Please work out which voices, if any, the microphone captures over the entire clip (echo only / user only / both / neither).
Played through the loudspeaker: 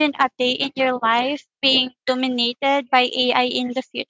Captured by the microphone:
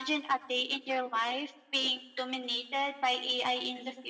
echo only